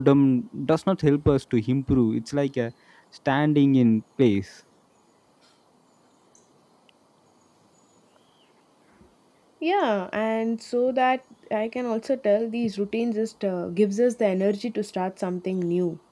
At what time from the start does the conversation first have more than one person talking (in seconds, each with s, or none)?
none